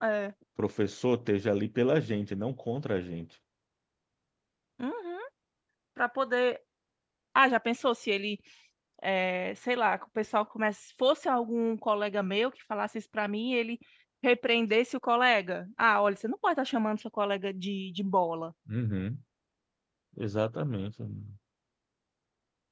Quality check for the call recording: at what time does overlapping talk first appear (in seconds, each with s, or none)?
none